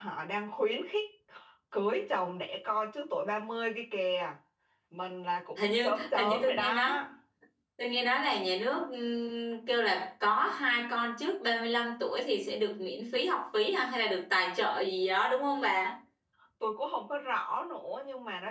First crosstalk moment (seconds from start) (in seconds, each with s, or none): 5.6 s